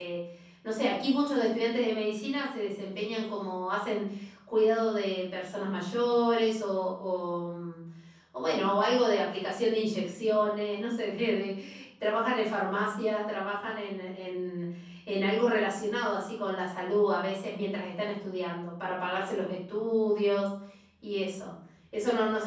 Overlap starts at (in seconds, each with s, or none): none